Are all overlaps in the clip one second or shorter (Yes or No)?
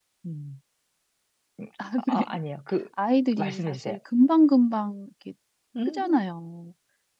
Yes